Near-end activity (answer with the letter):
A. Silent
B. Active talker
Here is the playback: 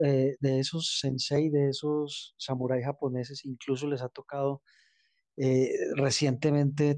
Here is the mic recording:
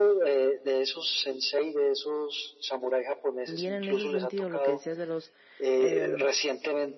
B